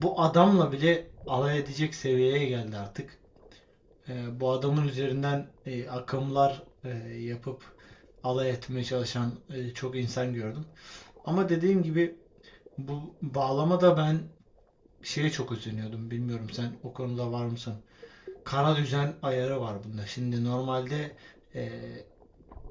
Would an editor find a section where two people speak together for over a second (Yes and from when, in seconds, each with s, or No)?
No